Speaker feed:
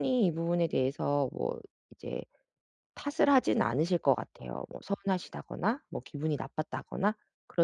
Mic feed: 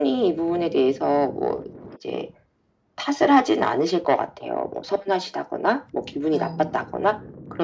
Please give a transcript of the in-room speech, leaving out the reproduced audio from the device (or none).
네.